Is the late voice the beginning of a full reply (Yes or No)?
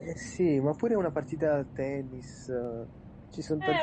Yes